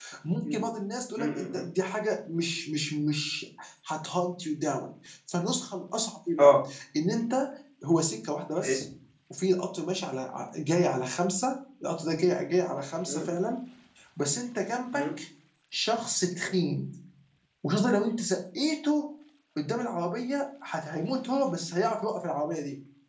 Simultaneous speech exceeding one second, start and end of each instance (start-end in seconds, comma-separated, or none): none